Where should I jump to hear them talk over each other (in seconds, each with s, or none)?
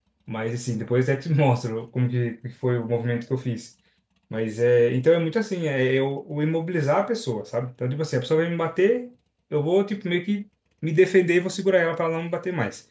none